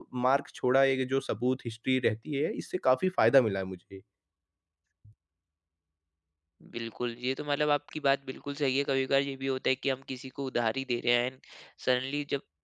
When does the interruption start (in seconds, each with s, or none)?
none